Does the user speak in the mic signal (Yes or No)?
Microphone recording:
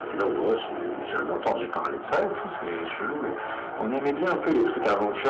No